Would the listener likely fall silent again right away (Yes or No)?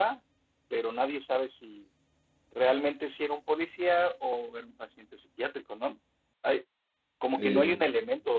Yes